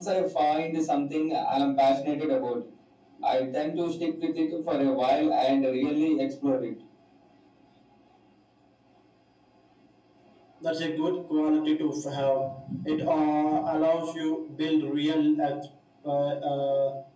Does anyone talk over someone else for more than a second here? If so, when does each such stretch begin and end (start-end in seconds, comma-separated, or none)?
none